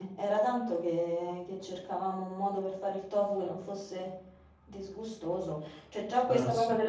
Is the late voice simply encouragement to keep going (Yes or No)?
Yes